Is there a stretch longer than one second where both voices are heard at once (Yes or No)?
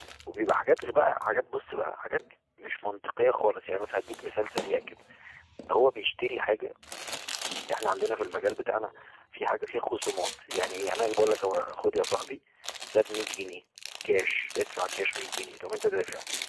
No